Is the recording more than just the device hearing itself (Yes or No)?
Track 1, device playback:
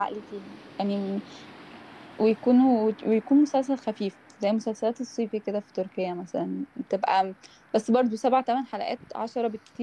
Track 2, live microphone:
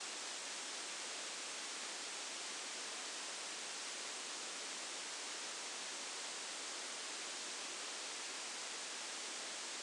No